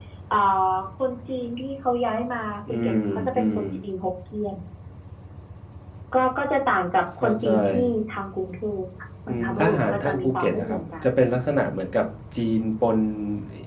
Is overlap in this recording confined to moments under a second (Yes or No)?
No